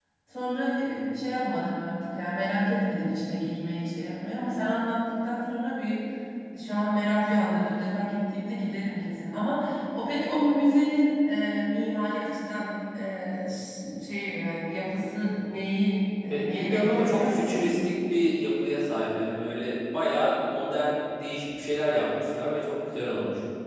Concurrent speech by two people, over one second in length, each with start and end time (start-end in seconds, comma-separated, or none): 16.3-17.7